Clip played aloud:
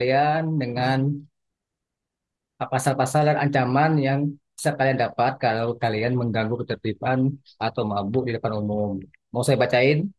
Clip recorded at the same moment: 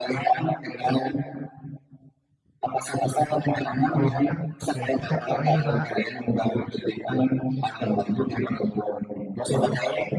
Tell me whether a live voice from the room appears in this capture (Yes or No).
Yes